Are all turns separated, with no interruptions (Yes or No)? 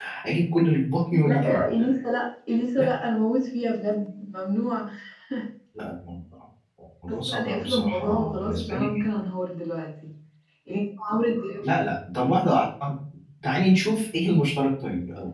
No